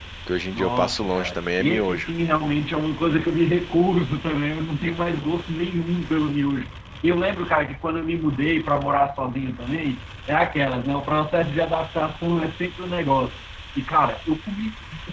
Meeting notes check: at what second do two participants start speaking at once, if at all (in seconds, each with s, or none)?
0.5 s